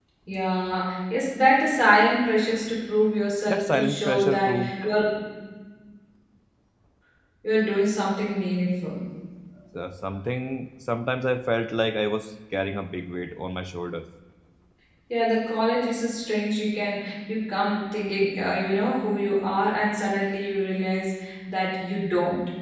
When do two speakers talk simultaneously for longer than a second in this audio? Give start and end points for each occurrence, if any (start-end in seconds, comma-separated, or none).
3.4-4.7